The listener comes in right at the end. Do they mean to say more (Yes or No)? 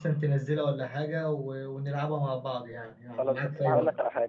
Yes